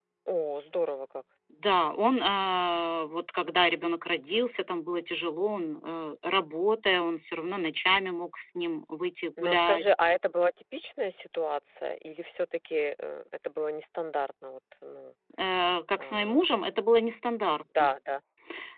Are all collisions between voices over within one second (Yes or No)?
Yes